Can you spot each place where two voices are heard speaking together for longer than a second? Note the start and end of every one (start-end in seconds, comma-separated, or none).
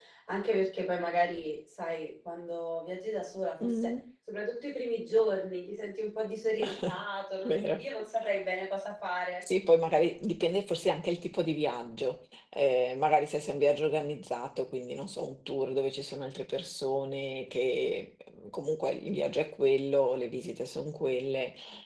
none